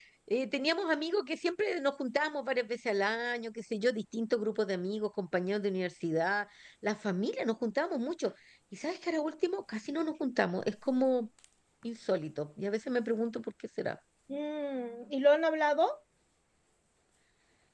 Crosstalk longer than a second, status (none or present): none